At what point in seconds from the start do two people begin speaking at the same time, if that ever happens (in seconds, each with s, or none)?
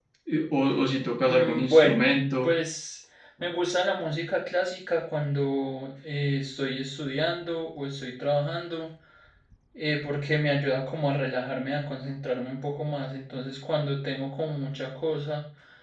1.2 s